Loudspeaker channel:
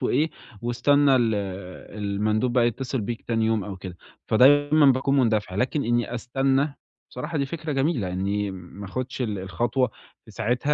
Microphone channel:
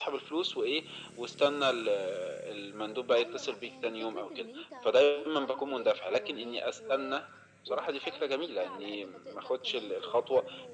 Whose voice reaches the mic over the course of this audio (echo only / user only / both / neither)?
both